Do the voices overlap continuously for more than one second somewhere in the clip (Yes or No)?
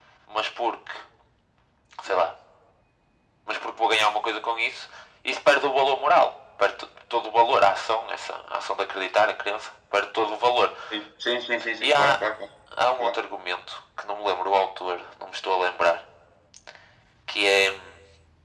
No